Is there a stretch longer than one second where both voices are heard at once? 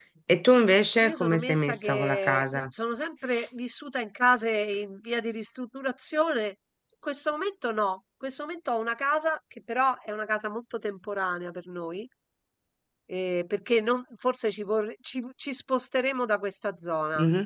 Yes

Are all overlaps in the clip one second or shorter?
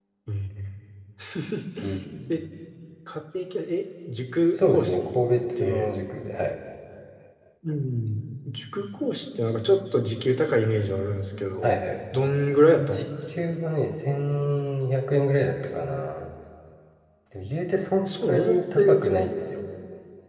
No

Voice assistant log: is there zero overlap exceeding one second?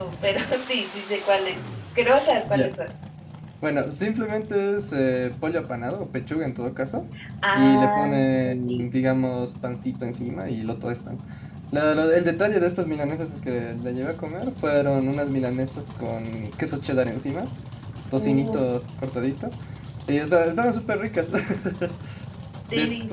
No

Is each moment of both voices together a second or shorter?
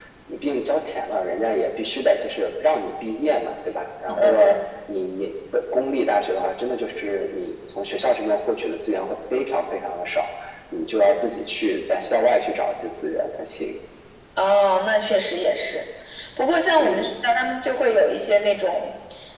Yes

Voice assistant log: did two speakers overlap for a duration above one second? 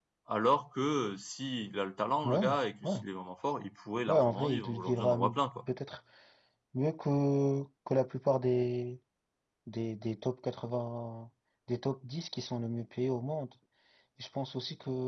Yes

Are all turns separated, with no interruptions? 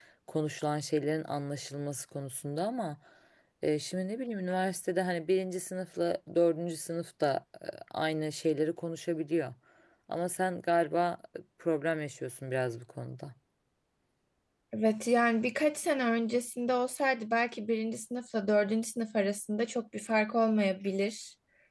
Yes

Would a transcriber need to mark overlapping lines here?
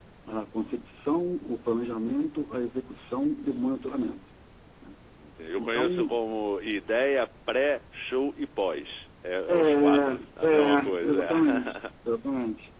Yes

